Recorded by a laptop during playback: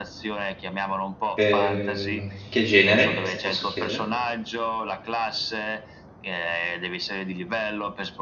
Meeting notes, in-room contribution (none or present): present